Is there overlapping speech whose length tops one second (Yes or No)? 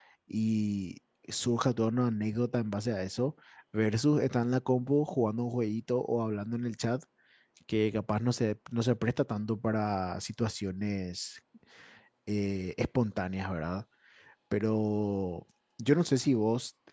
No